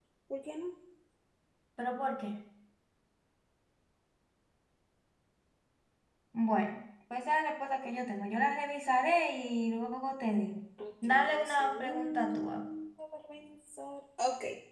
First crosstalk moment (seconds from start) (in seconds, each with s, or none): 11.0 s